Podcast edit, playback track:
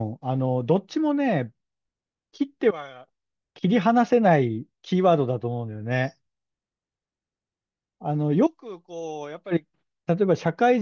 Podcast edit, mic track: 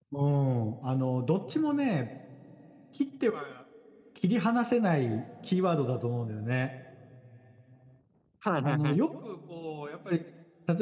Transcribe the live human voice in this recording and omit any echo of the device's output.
はいはいはい。

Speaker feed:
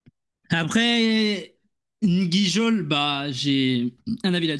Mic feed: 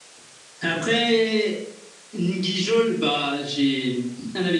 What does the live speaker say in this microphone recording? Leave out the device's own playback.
none

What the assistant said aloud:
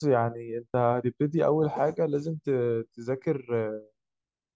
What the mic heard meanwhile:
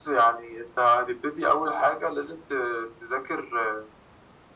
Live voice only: none

